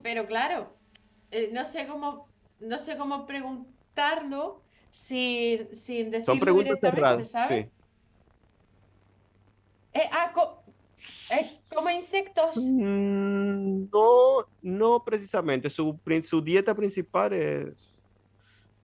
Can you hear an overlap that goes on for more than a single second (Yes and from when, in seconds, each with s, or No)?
Yes, from 6.3 s